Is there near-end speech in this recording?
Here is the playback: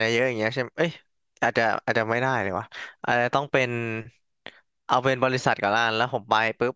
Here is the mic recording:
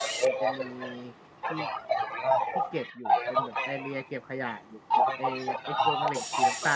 Yes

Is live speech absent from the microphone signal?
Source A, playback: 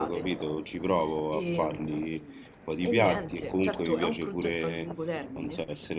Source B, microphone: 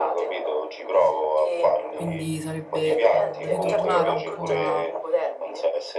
No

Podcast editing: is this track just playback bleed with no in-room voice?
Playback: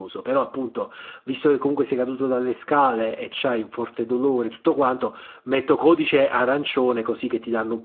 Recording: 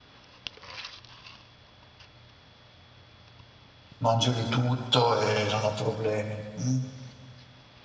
No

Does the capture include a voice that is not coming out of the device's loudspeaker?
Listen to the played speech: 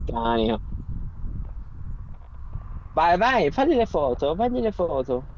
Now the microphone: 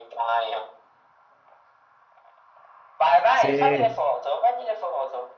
Yes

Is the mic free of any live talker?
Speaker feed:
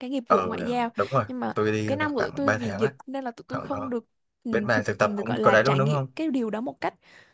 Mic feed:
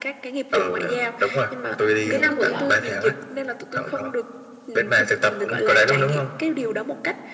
No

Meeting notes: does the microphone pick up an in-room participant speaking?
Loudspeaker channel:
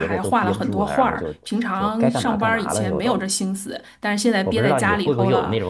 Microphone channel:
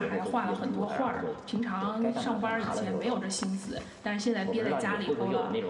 No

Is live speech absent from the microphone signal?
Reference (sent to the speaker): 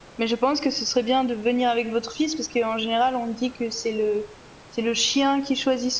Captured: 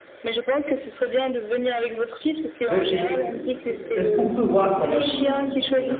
No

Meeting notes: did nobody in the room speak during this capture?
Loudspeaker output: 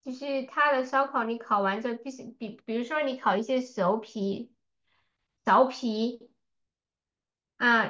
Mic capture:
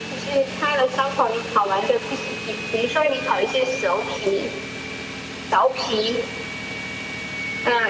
Yes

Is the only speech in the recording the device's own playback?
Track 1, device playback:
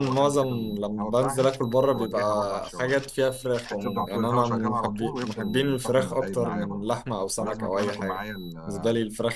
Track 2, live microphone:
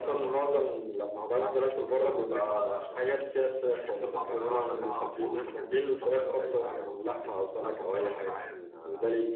Yes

